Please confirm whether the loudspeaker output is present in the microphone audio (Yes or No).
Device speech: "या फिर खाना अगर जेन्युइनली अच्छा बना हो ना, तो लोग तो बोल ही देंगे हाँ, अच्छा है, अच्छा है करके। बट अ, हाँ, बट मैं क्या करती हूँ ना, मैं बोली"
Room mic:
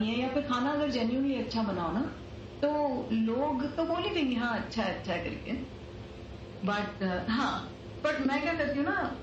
Yes